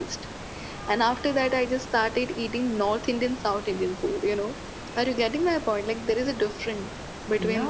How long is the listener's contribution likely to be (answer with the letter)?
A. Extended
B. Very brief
A